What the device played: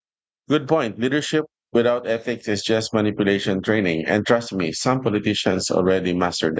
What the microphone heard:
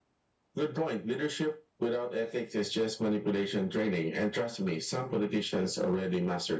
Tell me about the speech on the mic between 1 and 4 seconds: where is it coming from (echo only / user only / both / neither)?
echo only